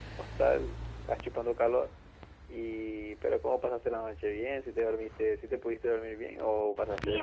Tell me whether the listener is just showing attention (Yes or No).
No